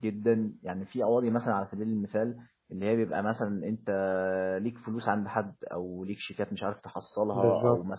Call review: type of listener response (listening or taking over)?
listening